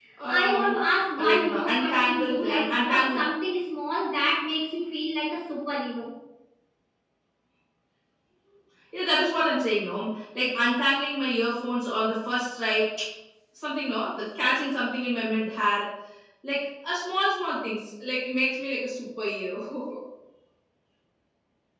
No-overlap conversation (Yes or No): No